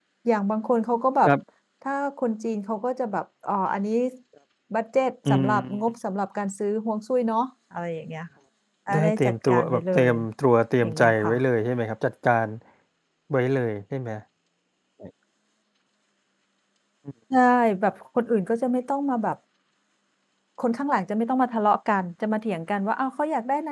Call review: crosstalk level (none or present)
present